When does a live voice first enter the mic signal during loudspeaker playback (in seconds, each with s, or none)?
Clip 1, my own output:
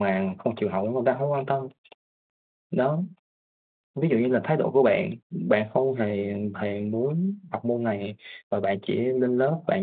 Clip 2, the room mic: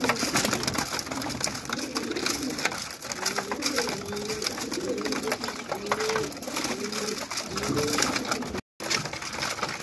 none